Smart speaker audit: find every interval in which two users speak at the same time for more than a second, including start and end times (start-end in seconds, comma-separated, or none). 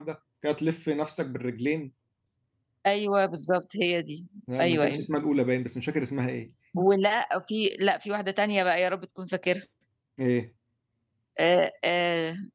none